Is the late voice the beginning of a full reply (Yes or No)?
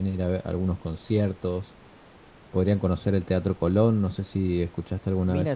Yes